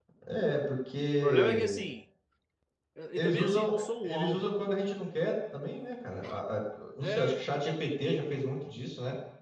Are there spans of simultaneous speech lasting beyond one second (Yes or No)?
Yes